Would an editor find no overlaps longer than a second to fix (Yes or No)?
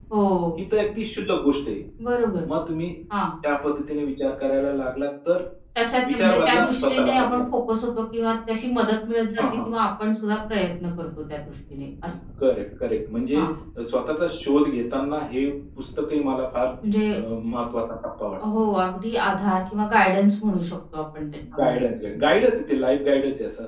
No